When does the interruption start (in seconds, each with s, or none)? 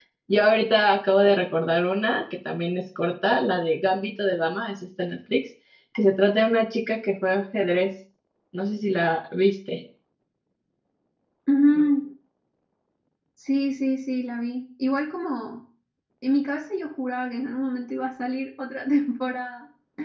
none